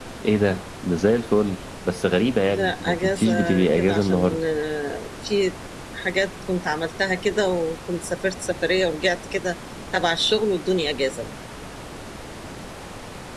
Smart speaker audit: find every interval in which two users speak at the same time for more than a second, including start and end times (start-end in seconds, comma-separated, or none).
2.5-4.4